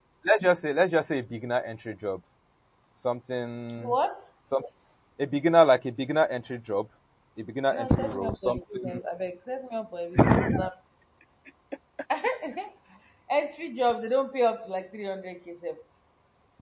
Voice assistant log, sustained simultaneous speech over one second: present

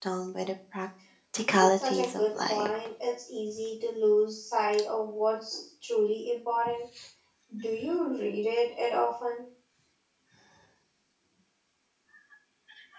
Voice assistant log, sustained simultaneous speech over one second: present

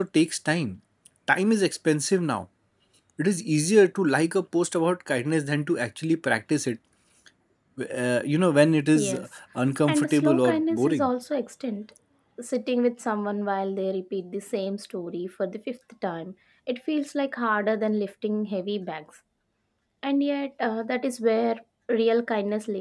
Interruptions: present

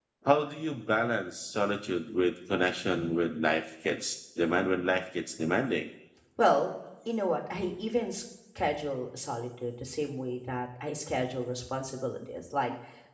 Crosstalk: none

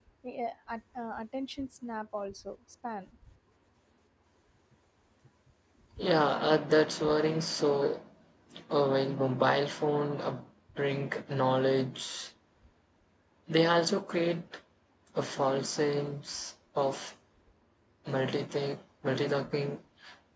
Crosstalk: none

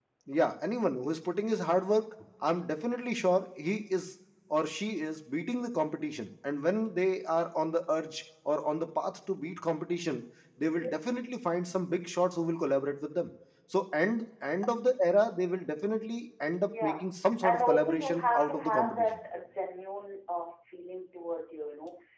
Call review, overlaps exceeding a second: present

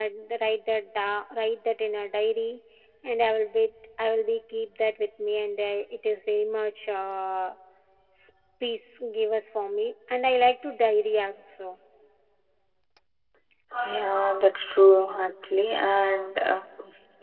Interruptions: none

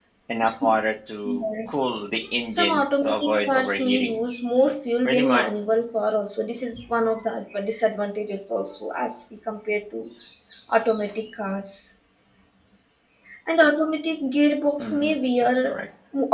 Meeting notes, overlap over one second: present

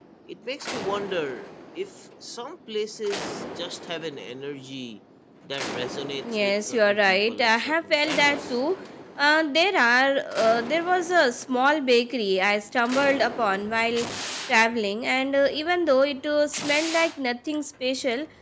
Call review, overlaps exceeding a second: present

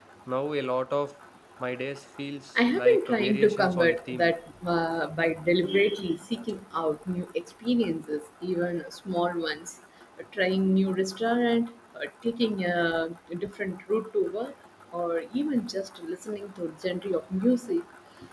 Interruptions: present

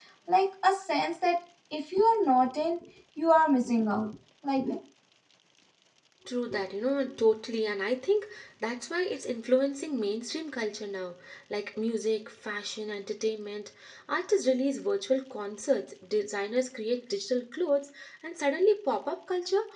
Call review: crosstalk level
none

